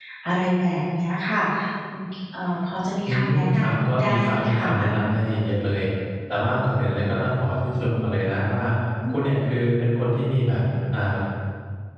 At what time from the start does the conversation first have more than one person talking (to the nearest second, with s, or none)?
3 s